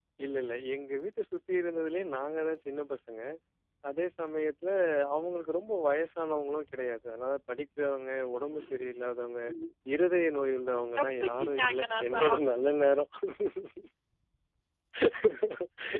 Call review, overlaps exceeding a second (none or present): present